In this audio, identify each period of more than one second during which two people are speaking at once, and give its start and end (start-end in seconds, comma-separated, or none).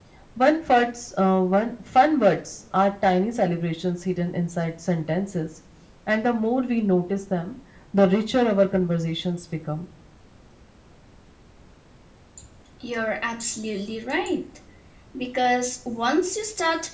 none